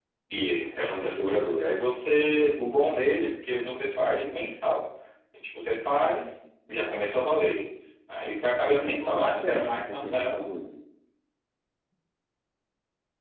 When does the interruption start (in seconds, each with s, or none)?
8.5 s